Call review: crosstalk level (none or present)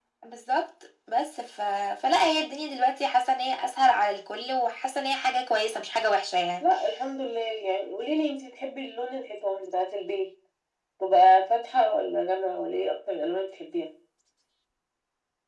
none